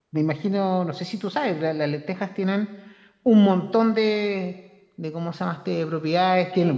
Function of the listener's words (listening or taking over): listening